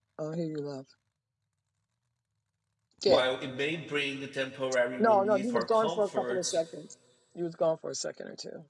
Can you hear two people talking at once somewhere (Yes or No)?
Yes